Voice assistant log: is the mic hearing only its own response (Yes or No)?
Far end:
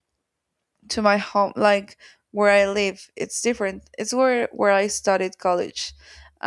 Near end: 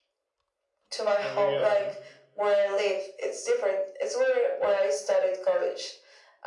No